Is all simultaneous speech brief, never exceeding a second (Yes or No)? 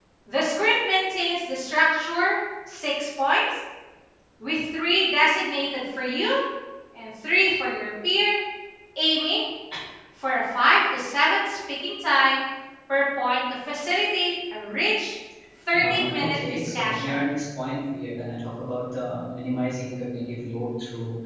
No